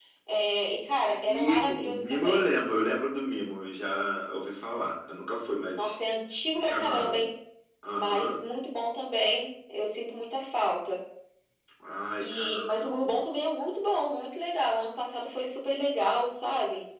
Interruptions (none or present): present